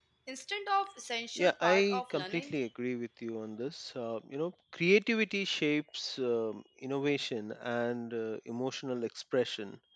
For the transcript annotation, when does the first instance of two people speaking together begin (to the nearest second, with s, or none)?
1 s